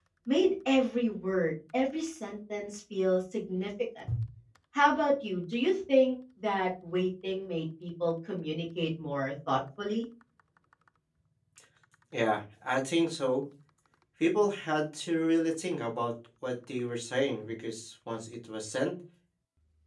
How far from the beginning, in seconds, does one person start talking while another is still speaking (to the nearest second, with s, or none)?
none